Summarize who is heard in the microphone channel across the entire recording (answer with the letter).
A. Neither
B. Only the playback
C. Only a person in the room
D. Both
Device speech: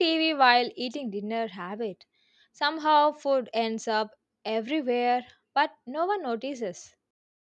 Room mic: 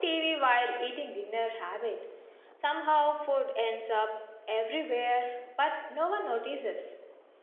B